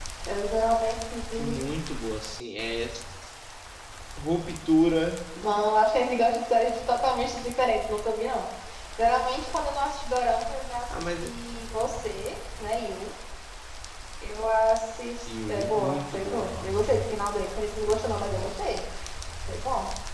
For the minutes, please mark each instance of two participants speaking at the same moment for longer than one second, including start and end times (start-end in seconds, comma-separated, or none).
15.5-16.8